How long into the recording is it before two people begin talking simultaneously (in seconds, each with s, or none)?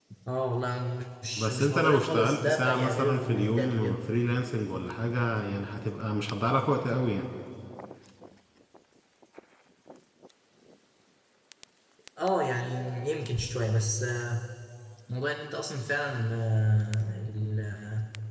1.4 s